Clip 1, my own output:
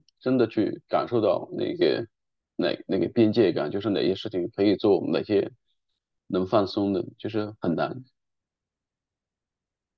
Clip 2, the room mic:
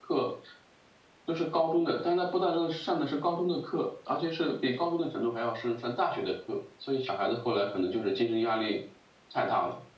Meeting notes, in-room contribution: present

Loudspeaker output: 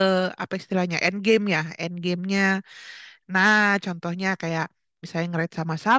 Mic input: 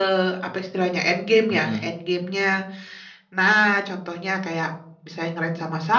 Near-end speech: present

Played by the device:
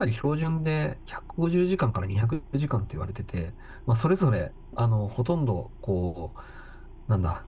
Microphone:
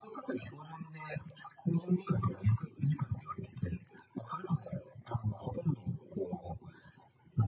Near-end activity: none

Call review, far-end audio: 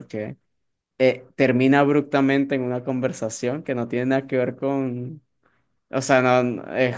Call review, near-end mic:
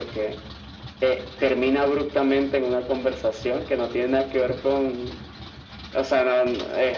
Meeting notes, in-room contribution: none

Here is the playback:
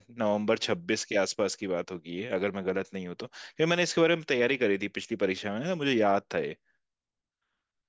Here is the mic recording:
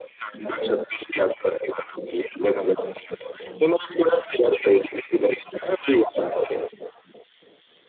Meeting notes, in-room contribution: none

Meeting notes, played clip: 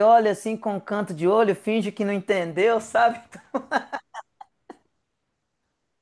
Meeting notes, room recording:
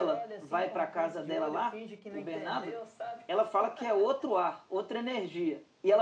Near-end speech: present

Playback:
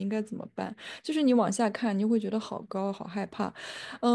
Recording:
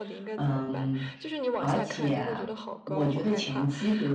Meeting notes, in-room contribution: present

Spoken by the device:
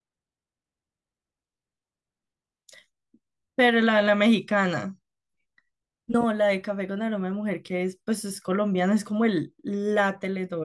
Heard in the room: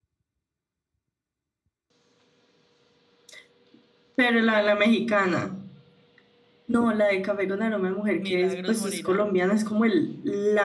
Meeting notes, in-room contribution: present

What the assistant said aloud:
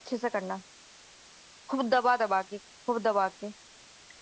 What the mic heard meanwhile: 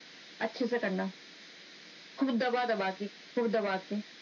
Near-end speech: none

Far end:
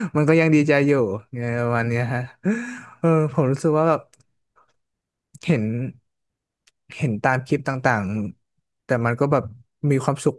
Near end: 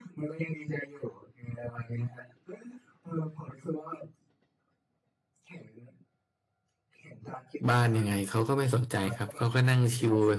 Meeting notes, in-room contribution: present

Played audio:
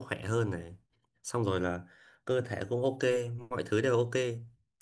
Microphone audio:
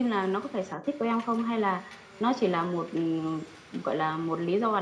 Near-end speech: present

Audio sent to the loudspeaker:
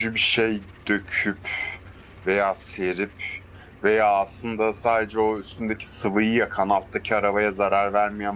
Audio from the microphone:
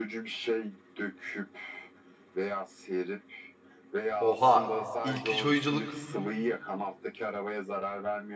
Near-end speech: present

